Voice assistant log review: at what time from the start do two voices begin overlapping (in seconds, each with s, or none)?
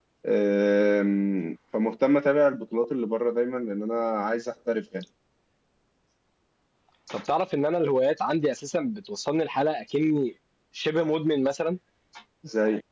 none